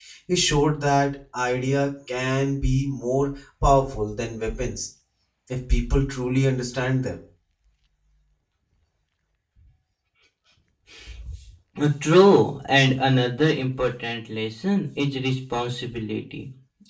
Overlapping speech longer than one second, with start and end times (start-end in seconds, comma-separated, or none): none